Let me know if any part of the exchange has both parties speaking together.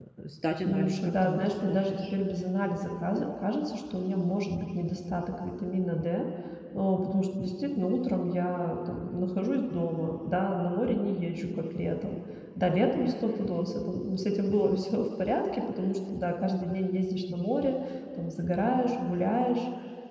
Yes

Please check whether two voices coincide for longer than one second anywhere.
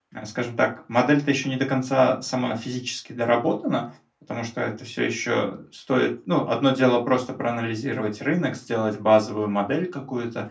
No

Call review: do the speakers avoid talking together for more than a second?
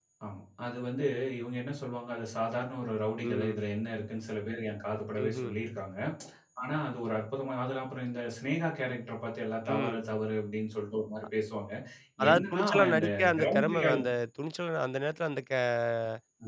No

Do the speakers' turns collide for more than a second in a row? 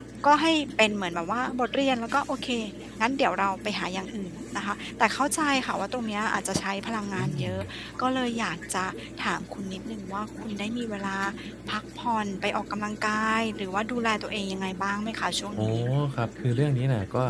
No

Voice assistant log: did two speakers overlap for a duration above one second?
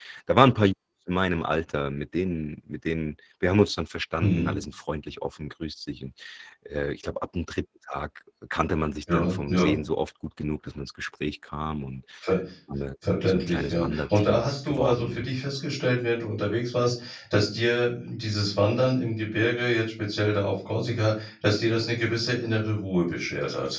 Yes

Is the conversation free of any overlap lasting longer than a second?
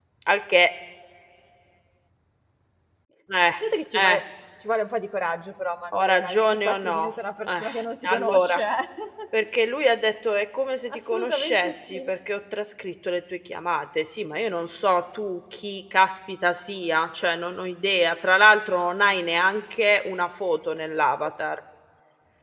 No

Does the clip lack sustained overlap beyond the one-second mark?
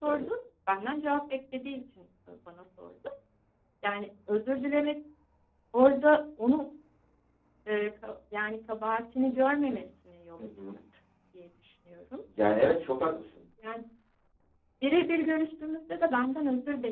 Yes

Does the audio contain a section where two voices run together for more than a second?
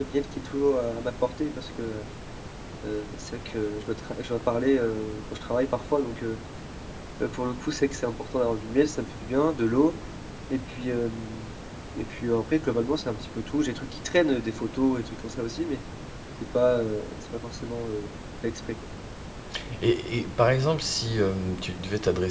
No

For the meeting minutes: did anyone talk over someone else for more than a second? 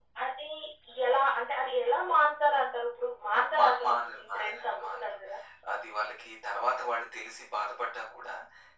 Yes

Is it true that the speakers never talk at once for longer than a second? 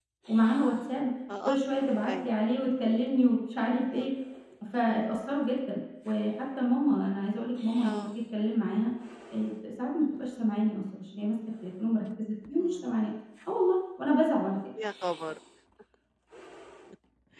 Yes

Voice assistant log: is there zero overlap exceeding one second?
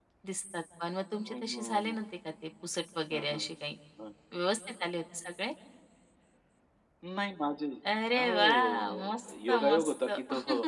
No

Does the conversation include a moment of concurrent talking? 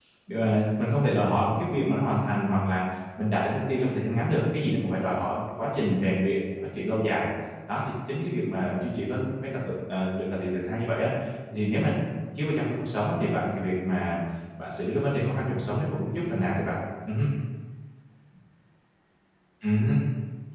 No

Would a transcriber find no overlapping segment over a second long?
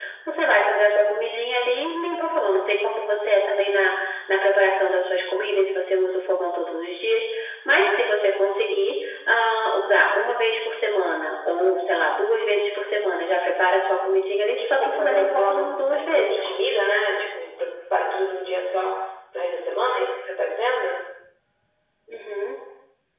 No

